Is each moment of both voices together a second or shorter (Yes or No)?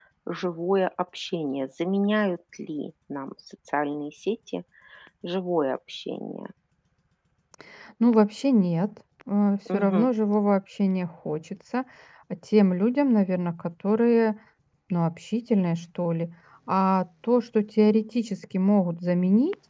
Yes